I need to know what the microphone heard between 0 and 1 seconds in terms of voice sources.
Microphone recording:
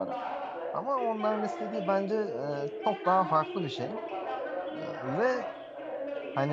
both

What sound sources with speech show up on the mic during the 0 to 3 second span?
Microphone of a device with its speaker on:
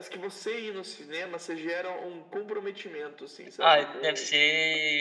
echo only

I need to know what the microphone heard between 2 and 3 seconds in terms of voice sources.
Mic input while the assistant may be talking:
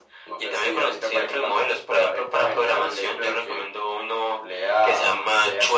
echo only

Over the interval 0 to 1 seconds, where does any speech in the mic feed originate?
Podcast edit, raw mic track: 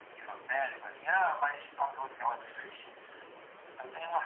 echo only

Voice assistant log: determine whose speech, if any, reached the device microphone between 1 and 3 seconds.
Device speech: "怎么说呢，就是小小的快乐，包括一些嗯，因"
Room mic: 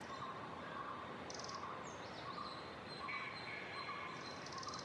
neither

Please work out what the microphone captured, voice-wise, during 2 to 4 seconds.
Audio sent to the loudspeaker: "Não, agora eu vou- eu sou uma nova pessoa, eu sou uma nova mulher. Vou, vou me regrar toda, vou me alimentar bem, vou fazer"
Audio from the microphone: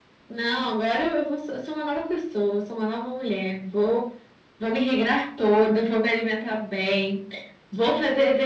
echo only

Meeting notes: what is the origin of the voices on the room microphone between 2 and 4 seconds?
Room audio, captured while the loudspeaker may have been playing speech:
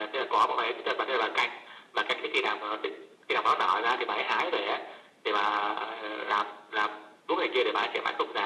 echo only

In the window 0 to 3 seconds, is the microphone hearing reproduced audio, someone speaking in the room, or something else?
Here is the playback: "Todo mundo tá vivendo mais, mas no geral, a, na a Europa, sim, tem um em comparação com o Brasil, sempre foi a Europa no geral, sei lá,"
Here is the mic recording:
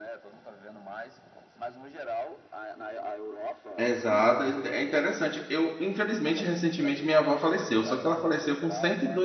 echo only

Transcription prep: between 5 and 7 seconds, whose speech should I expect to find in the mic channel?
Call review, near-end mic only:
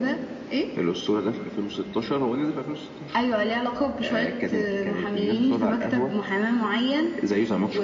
echo only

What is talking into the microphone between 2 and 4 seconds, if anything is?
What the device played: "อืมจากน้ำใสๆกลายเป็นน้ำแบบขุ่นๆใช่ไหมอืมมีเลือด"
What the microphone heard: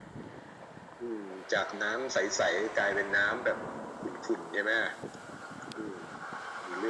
echo only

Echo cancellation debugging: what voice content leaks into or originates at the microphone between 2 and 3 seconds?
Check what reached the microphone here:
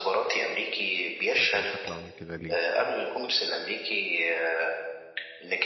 both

